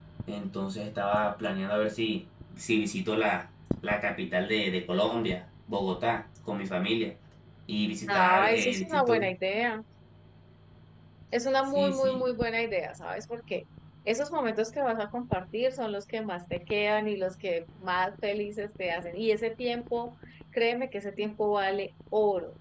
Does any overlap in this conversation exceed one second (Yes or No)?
Yes